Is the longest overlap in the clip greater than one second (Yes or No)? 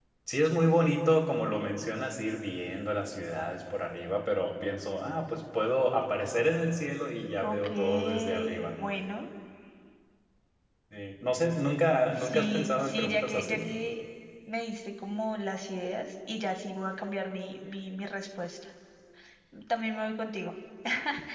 Yes